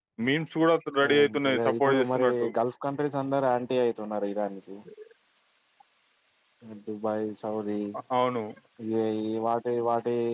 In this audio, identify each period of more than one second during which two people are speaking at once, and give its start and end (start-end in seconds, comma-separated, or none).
1.1-2.5